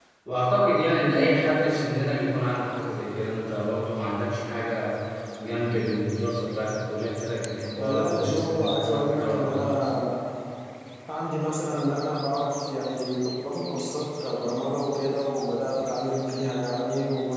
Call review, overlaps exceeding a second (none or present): present